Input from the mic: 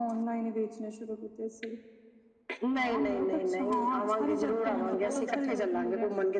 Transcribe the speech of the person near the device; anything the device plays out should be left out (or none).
ਹਾਂ ਭੋਂਦਾ- ਭੋਂਦਾ ਸਾਹਿਬ